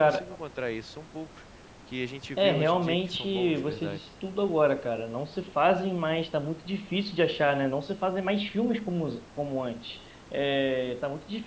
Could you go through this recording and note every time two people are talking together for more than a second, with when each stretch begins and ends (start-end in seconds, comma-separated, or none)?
2.4-4.0